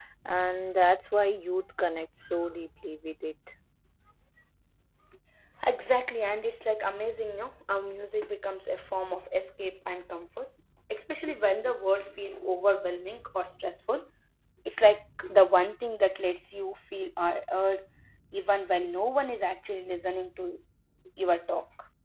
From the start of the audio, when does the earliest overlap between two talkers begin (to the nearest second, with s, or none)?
none